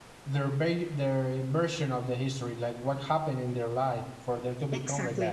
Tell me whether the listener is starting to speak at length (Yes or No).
Yes